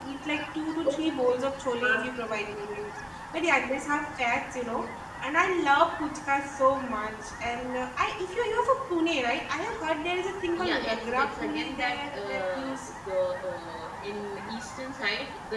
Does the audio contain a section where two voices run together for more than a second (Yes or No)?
Yes